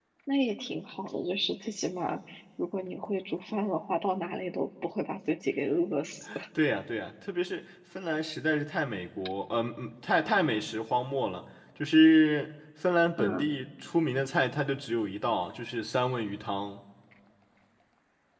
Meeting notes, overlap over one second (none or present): none